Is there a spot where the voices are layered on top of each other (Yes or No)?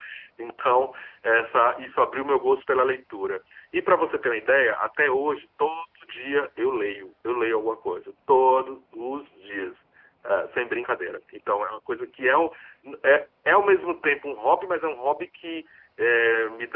No